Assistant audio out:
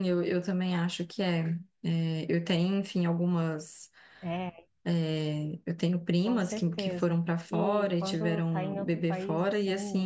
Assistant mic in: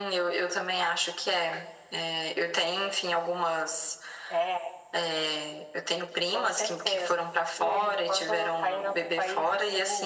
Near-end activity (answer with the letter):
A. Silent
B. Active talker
A